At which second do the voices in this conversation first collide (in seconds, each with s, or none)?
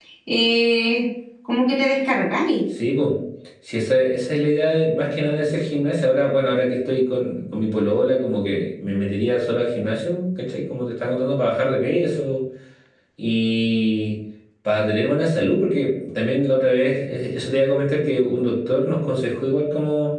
none